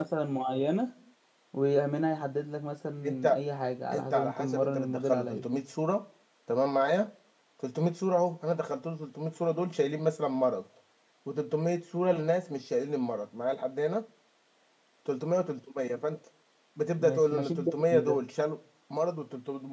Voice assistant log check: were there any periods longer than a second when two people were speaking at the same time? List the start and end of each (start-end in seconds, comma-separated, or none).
3.9-5.5, 17.0-18.2